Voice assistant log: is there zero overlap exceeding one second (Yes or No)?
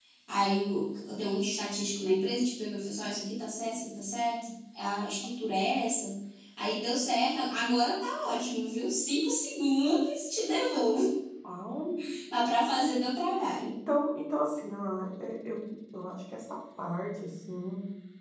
Yes